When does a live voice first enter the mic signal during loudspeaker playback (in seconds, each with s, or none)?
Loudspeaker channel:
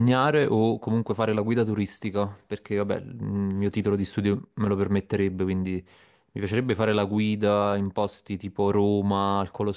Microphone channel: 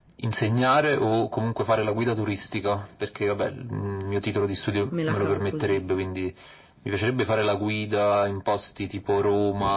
4.9 s